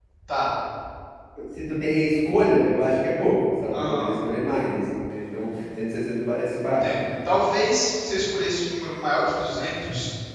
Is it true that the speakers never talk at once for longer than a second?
Yes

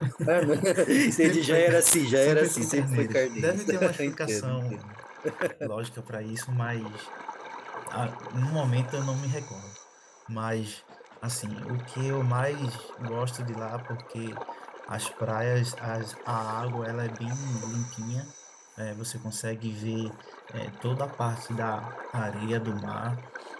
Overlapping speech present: Yes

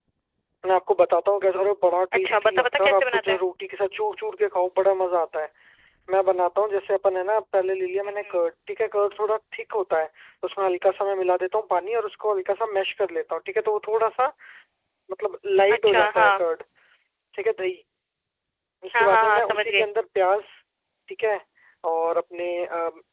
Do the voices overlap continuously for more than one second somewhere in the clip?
Yes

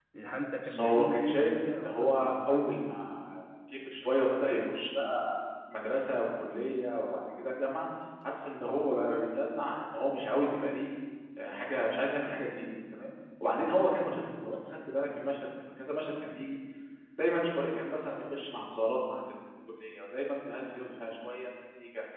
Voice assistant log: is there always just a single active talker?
No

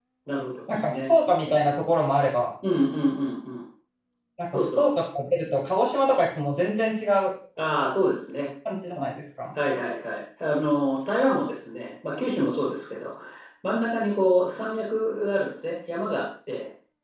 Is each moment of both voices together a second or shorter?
Yes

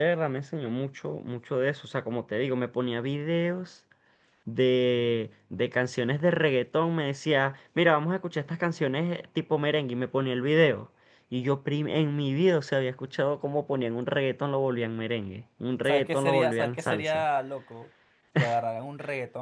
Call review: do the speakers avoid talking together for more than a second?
No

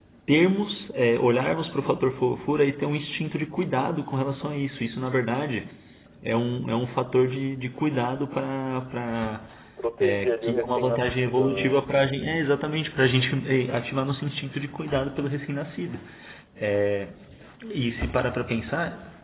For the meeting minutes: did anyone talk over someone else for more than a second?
Yes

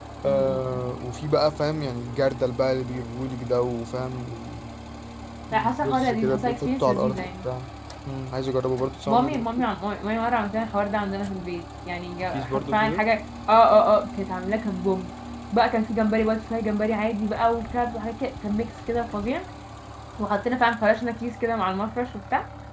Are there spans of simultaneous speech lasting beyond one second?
Yes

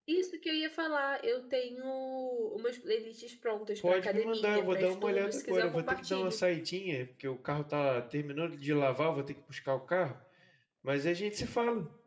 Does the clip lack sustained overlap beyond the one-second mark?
No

